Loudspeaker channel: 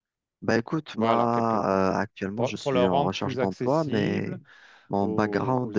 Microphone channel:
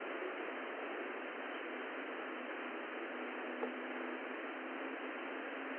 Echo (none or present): none